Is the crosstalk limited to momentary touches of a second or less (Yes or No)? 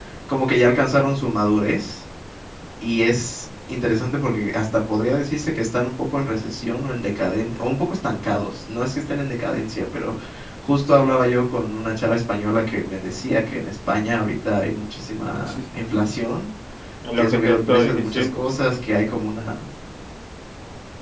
No